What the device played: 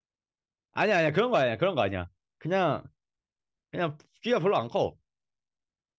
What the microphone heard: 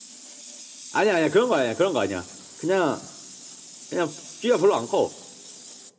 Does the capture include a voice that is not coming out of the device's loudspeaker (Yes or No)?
No